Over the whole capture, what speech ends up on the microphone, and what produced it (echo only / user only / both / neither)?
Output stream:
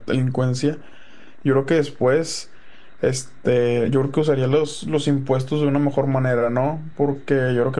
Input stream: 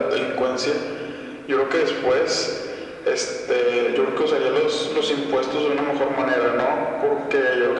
echo only